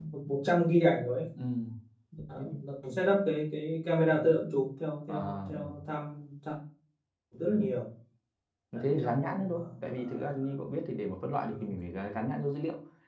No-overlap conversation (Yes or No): No